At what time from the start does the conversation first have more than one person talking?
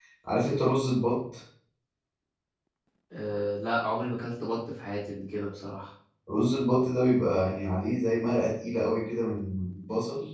none

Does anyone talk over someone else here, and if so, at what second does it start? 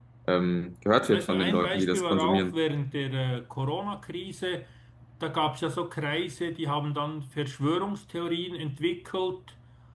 1.1 s

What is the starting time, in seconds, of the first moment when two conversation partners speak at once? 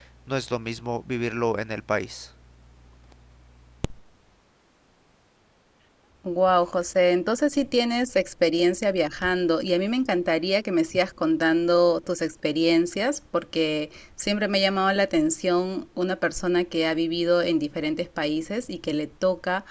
none

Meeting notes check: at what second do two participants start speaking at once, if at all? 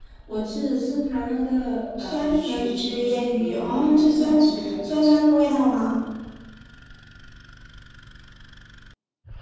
2.0 s

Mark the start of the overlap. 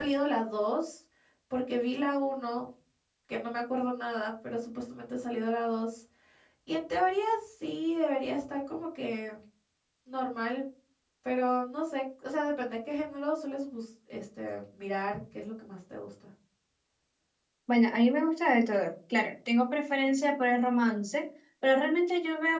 none

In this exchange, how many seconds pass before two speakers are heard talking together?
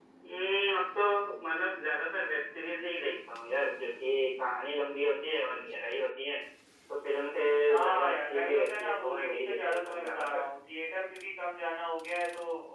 7.8 s

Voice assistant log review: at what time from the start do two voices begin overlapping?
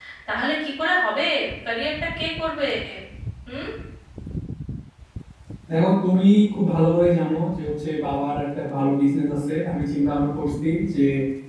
none

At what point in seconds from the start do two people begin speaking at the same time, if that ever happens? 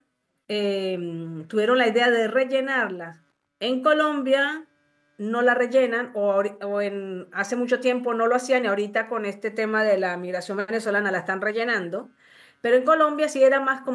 none

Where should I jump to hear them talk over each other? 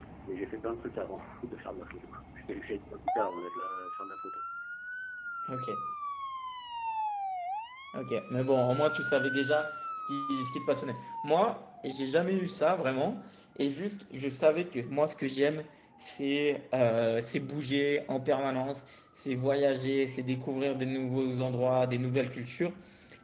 none

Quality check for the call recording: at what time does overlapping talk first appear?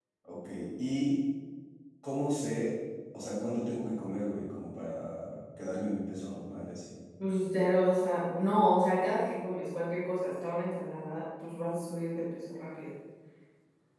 none

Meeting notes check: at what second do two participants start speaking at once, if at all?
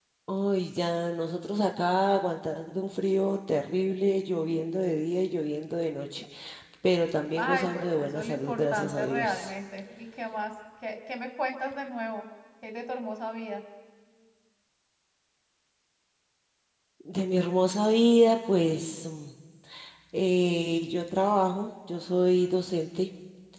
7.3 s

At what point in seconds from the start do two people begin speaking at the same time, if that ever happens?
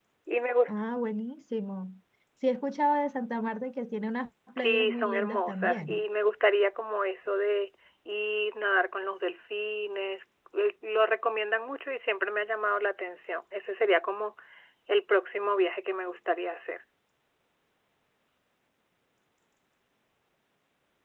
4.6 s

